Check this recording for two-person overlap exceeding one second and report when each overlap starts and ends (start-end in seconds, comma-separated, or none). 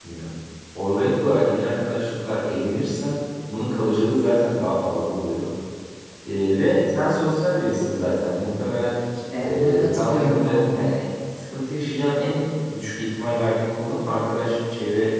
9.4-10.9